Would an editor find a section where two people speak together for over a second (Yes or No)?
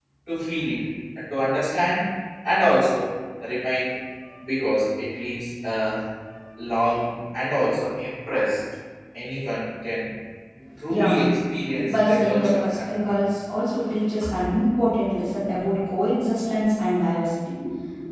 Yes